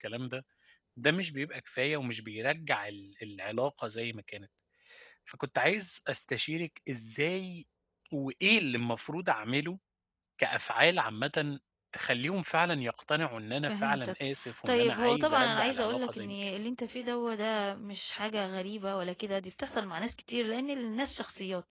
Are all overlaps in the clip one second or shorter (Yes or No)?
No